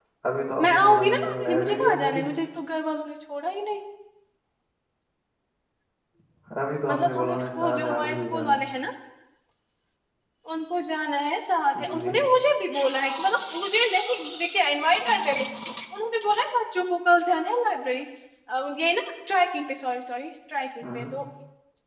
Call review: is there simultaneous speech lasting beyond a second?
Yes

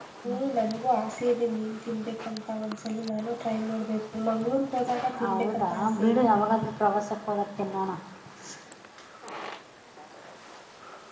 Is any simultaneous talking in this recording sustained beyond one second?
Yes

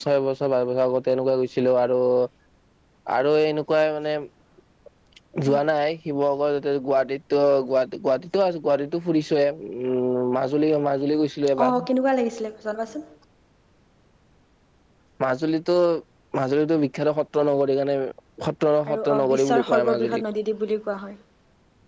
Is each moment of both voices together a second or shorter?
No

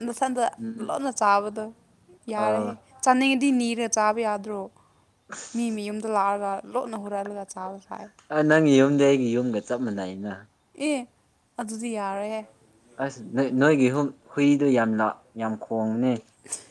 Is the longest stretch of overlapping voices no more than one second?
Yes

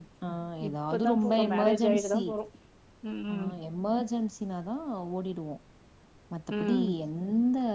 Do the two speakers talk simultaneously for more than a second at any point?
Yes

